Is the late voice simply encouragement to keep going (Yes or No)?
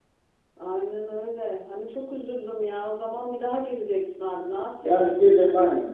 No